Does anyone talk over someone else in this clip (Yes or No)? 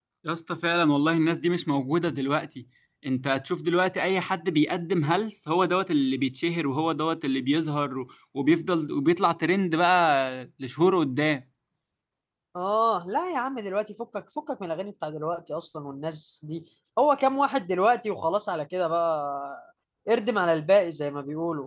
No